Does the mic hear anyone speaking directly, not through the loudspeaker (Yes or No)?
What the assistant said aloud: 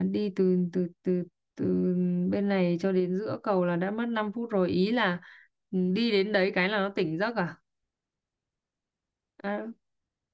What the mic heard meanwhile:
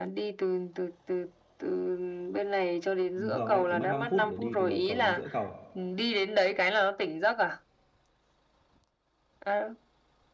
Yes